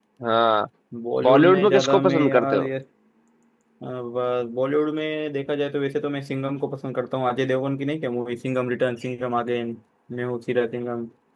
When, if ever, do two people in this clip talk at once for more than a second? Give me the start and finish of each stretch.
1.2-2.7

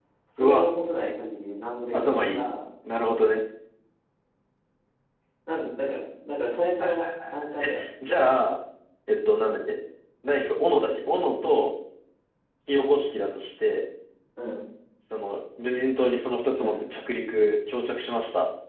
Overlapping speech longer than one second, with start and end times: 6.8-8.3

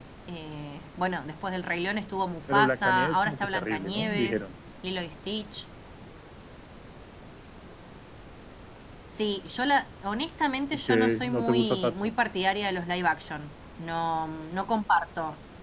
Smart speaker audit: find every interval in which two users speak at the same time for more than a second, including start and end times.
2.5-4.4, 10.9-12.1

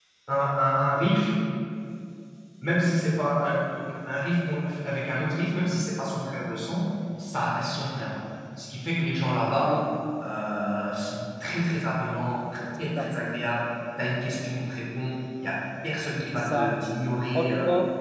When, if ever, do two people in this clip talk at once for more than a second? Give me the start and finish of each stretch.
none

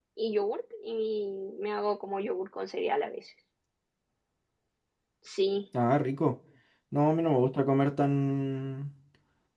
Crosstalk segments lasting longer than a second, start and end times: none

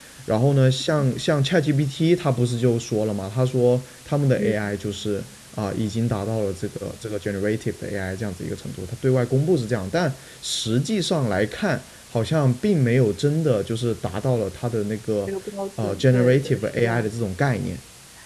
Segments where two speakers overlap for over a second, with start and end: 15.8-17.1

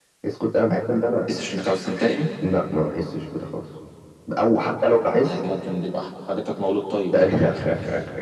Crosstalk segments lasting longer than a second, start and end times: none

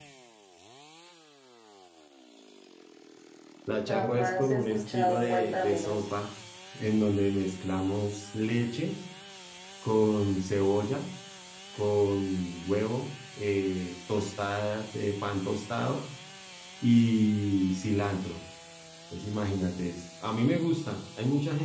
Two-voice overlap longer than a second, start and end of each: 3.9-6.2

